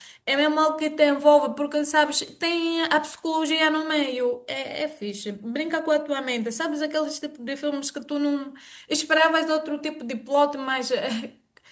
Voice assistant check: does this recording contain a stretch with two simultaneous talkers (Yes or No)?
No